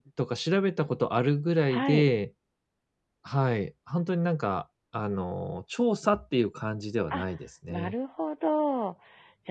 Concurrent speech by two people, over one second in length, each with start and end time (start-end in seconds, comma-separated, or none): none